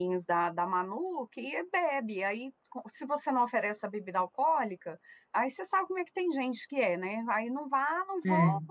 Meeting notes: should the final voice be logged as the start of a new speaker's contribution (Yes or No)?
No